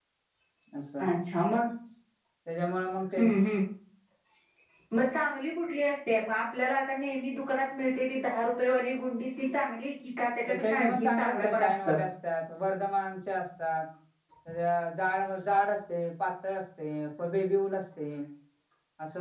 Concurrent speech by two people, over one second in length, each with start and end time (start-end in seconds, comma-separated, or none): 10.5-12.0